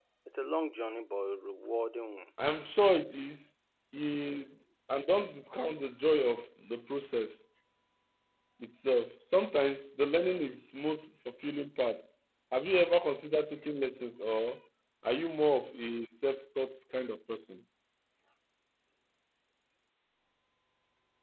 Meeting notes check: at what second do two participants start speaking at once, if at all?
none

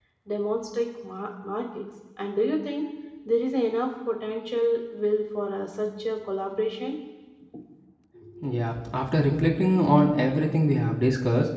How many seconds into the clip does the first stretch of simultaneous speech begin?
none

